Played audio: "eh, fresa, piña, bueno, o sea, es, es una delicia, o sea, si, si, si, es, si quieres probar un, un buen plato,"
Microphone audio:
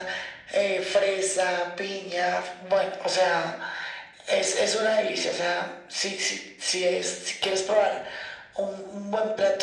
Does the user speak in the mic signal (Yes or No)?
No